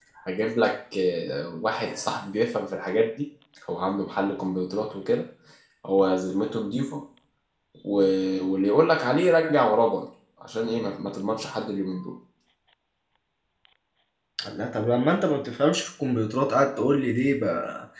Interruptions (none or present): none